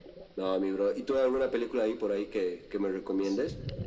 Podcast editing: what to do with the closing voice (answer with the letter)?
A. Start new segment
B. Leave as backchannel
A